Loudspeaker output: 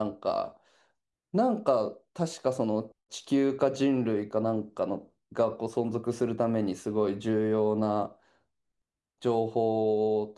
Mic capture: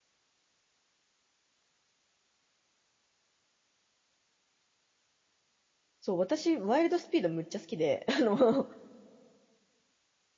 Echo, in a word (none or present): none